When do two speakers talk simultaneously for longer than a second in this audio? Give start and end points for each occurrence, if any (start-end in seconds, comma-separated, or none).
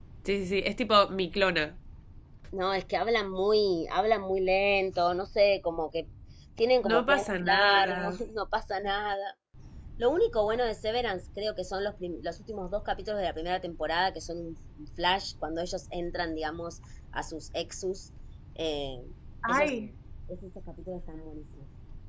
6.9-8.2